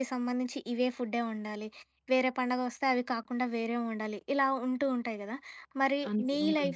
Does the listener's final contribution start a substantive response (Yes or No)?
No